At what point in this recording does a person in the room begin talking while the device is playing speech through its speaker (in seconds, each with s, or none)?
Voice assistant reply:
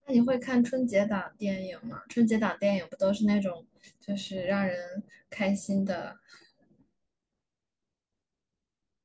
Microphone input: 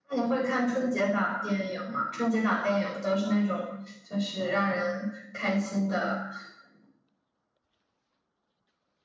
none